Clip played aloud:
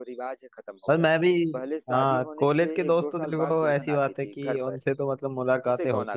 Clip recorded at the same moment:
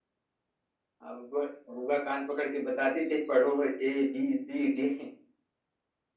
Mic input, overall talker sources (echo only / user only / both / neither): user only